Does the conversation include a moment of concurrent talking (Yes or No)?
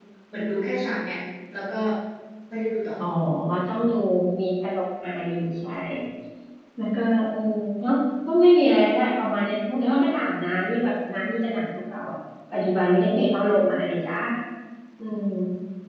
No